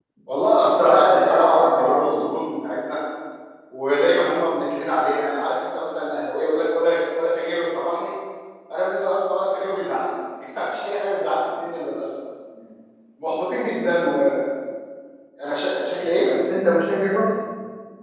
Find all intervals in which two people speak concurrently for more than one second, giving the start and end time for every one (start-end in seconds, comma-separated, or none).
0.6-2.2